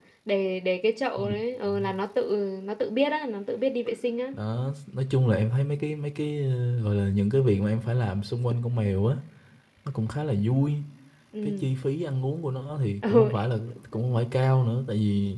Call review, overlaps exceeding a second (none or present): none